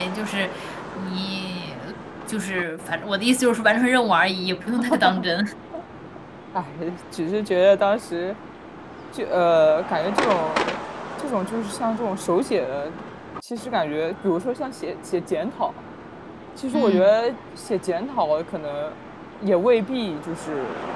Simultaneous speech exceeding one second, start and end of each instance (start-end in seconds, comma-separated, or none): none